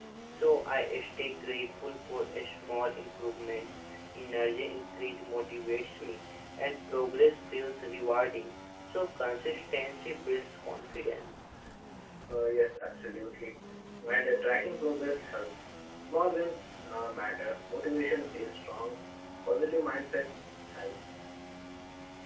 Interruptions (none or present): none